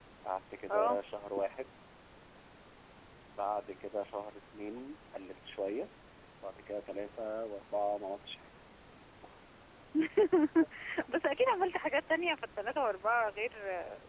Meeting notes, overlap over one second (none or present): none